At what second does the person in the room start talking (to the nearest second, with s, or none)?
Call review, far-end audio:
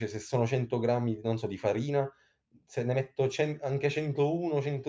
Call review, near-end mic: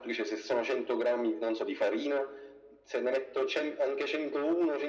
none